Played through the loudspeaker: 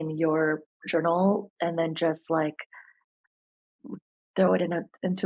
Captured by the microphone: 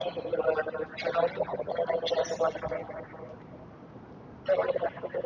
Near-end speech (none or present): none